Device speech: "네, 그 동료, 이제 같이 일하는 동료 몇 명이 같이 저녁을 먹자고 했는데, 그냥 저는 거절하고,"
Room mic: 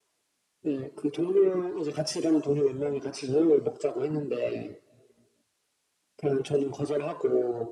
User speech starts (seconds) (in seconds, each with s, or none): none